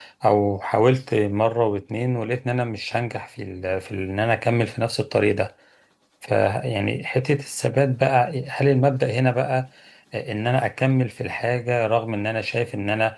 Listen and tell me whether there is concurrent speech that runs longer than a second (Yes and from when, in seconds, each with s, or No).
No